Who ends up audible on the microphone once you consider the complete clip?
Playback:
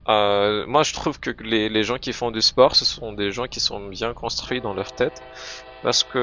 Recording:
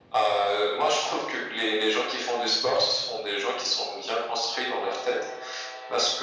echo only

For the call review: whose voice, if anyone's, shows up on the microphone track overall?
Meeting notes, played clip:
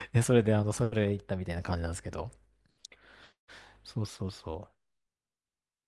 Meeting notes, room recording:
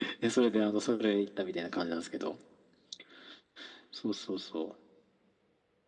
echo only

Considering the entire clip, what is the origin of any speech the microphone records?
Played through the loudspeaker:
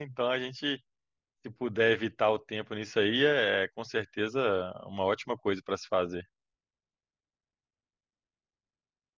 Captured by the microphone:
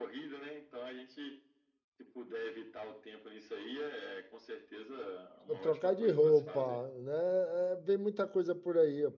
both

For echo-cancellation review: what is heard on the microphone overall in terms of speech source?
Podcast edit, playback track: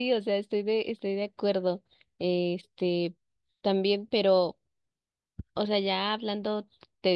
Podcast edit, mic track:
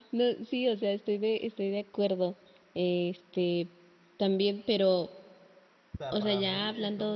both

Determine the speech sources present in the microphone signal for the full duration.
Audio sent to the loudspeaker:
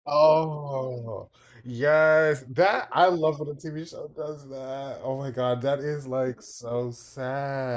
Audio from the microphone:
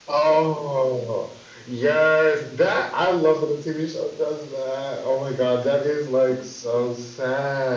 echo only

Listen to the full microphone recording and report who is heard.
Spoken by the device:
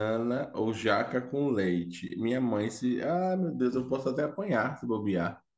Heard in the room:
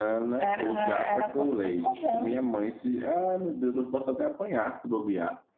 both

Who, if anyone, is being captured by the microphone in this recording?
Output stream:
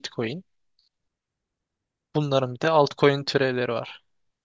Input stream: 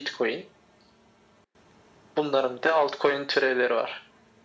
echo only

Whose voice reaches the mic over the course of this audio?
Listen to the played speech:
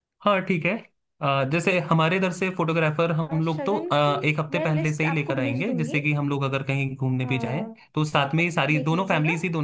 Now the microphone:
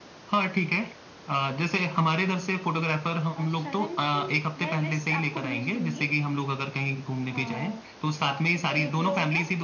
both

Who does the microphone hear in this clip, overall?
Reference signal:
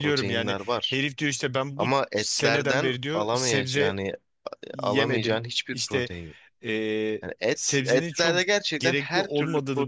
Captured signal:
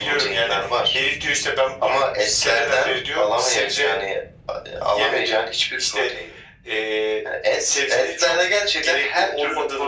echo only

